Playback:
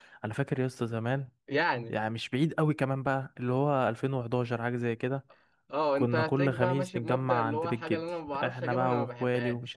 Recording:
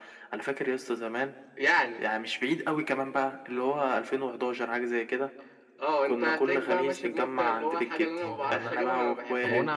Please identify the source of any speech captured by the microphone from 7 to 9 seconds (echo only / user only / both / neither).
both